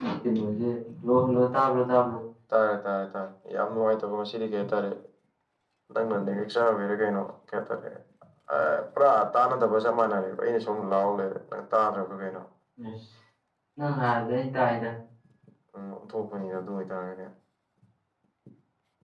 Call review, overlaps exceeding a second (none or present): none